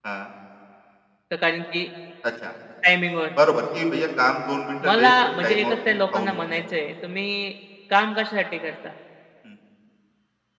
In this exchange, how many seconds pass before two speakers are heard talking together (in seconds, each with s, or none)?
4.8 s